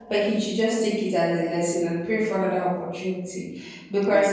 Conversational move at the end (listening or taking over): taking over